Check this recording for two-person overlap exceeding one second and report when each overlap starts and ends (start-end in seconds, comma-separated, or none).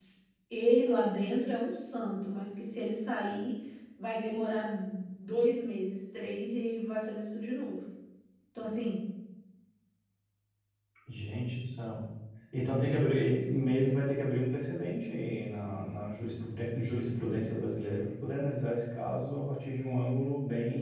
none